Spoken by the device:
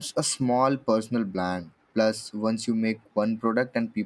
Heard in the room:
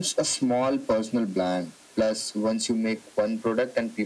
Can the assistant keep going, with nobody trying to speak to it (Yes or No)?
Yes